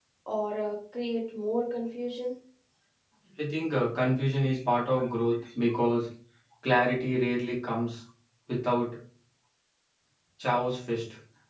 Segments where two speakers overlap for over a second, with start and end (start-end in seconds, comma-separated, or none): none